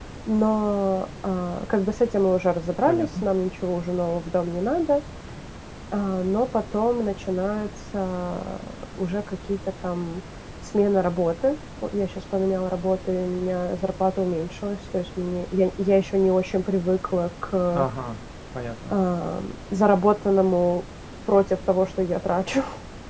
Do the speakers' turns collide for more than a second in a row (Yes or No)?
No